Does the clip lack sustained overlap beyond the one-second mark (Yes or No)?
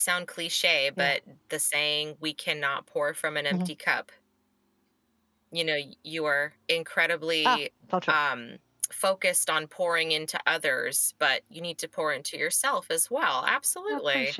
Yes